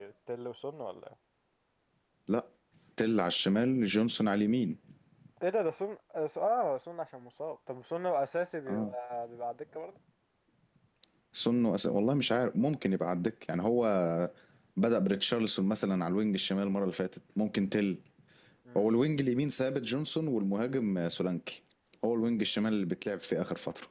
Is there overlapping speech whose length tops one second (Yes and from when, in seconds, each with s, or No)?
No